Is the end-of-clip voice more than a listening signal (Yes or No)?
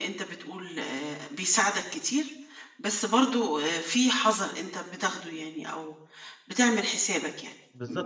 Yes